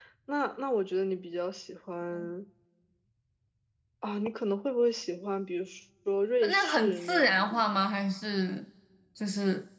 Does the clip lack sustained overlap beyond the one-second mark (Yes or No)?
No